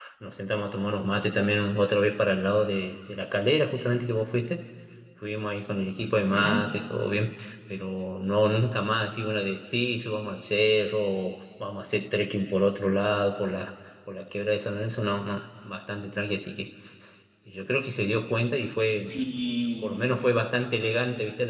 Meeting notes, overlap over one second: none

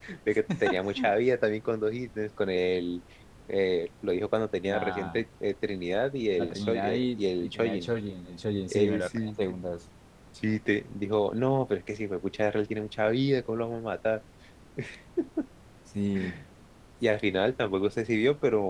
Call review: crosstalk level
present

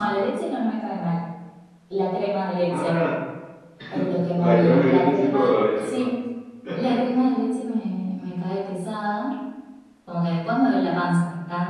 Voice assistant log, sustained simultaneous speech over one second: present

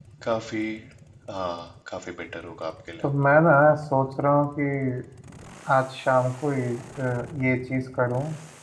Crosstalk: none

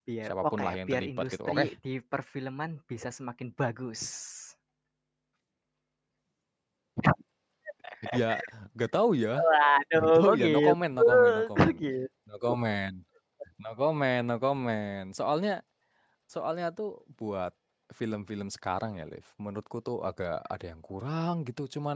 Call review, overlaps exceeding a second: present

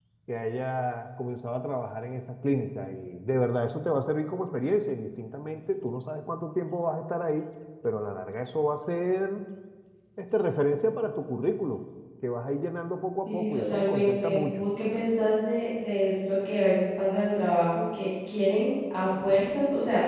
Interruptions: present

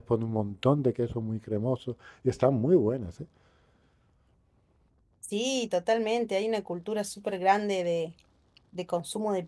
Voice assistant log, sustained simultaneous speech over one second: none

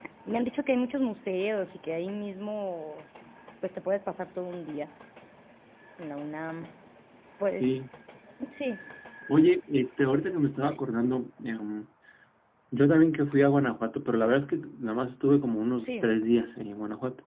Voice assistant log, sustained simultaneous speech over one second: none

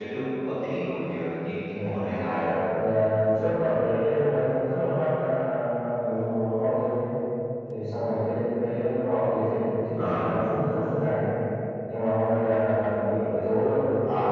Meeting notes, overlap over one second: none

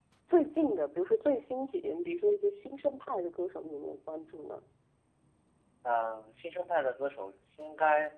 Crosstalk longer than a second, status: none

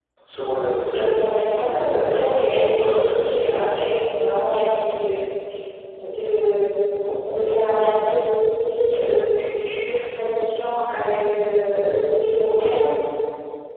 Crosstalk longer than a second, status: present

